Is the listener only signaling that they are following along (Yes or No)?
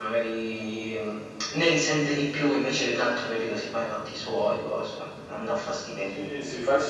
No